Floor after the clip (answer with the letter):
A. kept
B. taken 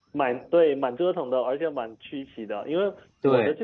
A